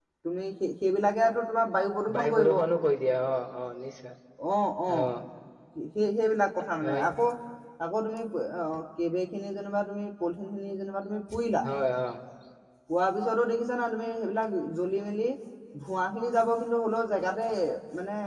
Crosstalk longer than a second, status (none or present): none